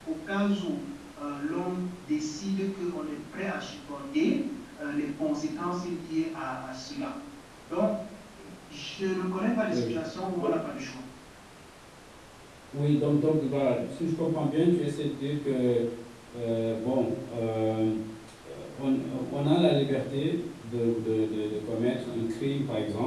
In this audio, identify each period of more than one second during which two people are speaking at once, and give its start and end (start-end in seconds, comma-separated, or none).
none